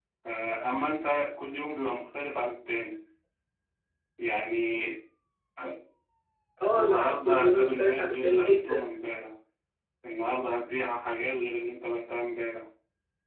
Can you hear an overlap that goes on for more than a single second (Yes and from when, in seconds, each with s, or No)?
Yes, from 6.7 s